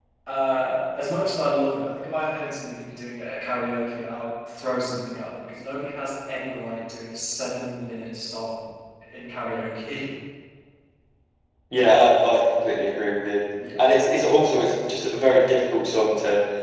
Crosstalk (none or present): none